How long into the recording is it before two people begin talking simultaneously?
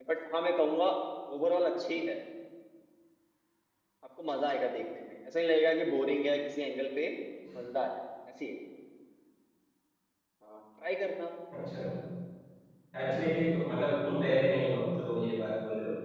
none

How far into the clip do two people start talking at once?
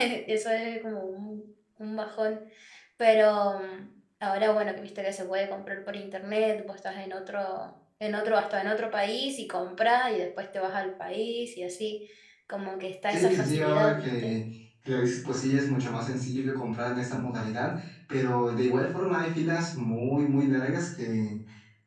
13.1 s

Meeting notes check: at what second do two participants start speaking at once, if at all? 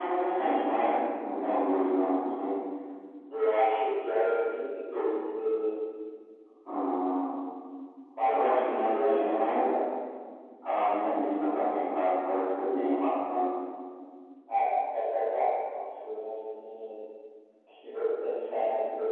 8.2 s

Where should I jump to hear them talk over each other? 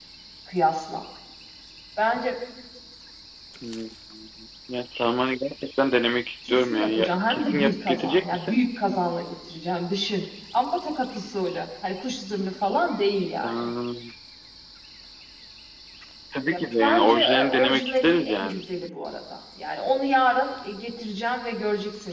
6.5 s

